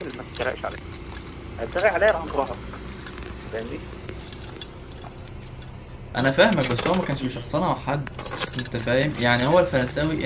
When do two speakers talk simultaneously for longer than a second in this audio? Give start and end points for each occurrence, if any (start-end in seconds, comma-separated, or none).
none